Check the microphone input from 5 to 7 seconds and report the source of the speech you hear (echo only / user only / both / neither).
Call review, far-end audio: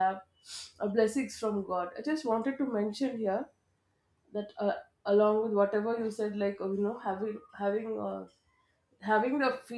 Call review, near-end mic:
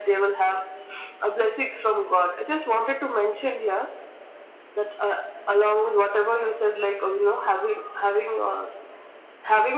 echo only